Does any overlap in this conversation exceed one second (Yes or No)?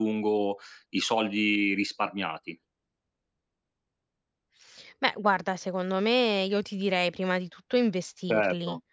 No